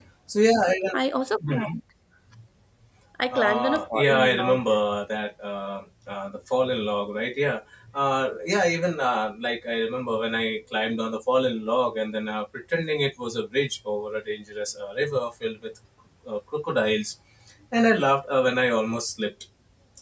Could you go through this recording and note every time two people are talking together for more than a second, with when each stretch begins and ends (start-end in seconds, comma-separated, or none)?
3.3-4.6